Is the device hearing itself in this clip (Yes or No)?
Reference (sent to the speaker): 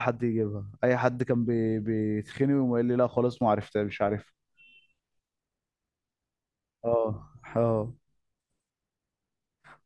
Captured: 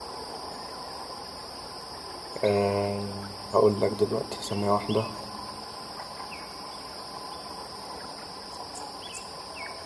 No